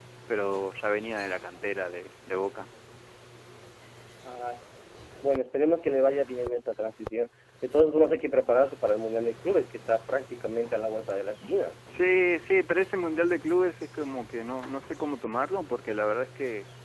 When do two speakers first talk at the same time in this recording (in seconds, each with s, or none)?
none